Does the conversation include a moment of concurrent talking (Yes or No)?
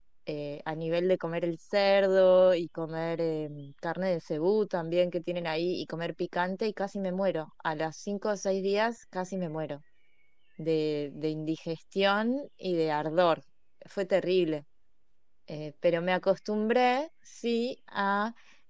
No